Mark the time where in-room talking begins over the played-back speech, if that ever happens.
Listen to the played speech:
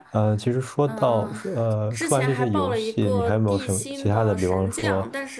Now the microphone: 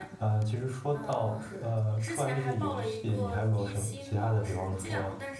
none

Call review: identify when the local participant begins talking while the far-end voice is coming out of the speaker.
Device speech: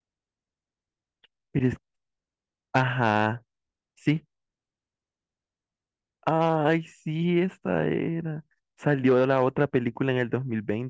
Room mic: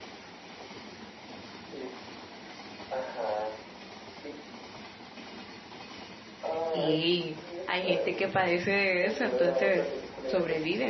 7 s

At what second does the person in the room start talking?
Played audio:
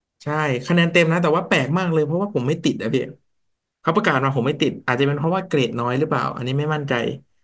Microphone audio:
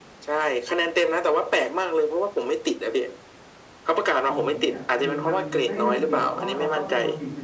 4 s

